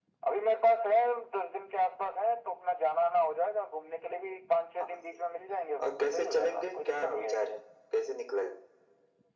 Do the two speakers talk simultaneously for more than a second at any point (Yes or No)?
Yes